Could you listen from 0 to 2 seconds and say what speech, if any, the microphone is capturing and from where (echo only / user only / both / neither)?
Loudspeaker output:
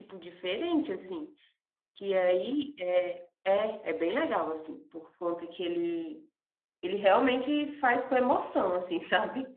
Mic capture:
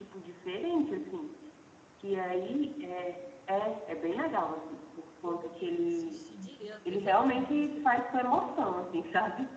echo only